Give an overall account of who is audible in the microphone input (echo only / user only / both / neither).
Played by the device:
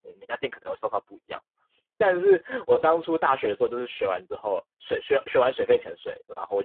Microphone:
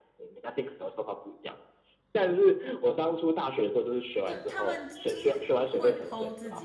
both